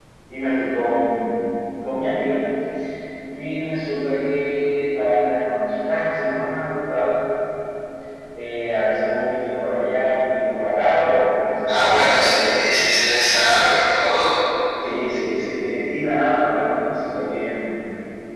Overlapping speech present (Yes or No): Yes